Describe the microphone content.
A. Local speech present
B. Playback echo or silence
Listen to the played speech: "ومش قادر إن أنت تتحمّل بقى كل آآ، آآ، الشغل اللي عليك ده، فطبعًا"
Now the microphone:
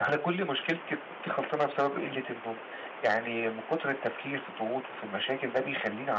A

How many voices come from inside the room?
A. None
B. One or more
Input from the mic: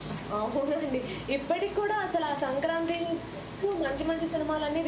A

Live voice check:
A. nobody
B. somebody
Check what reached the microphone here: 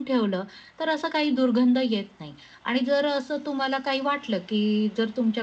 A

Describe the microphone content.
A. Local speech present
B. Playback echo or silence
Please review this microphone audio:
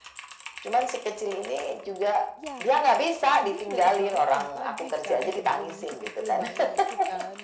A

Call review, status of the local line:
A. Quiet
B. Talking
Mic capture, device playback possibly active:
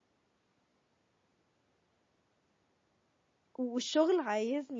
B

